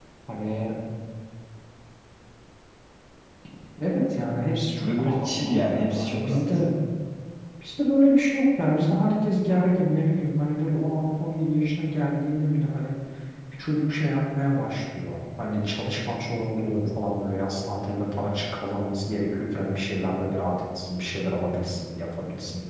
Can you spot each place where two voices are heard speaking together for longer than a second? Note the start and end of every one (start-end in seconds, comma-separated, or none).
4.9-6.4